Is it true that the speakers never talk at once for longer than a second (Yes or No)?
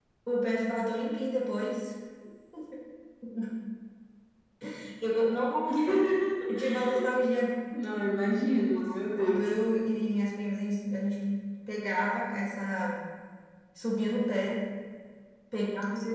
Yes